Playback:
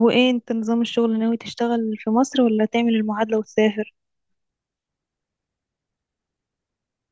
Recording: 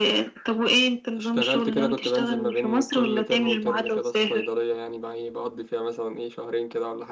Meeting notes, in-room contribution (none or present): present